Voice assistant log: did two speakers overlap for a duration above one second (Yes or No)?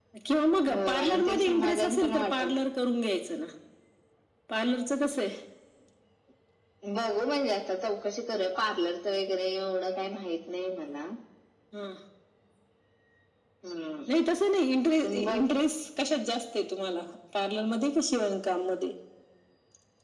Yes